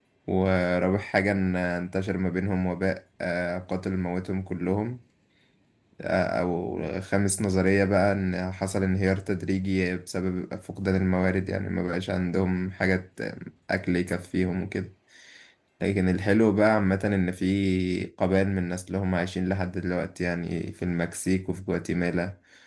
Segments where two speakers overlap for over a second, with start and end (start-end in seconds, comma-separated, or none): none